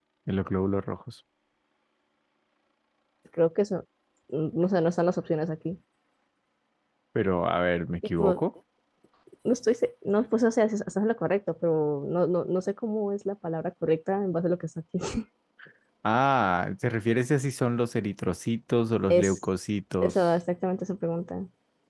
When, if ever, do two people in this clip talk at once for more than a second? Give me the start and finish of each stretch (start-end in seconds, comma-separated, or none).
none